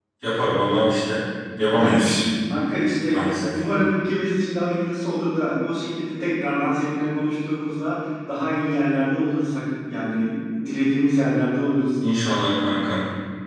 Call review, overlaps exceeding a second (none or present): none